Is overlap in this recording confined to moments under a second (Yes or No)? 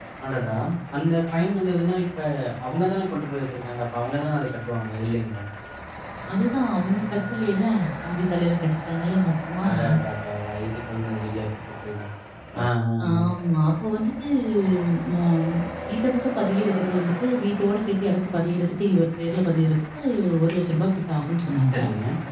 Yes